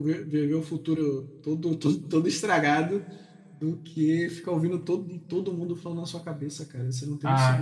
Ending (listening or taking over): taking over